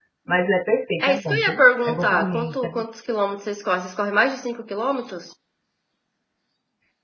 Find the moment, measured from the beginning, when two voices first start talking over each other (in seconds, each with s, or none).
1.0 s